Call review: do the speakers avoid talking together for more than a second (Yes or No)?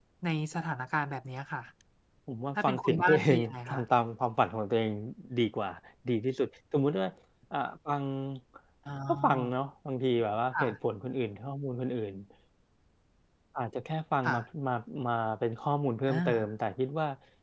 No